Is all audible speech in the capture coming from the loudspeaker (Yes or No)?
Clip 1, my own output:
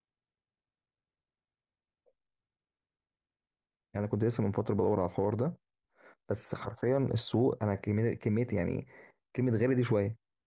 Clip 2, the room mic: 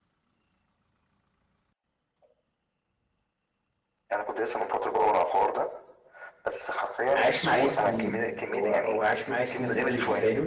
No